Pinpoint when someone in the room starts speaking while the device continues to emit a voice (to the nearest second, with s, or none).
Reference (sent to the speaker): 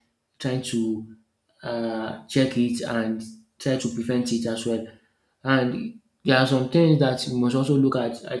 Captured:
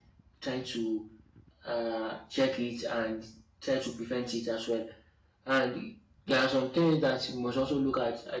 none